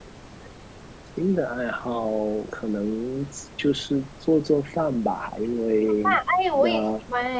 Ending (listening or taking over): taking over